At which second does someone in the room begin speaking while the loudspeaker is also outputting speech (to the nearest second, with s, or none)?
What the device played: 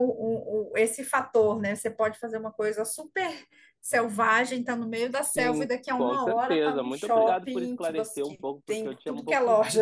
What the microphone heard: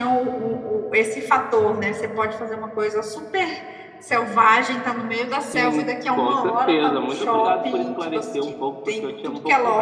none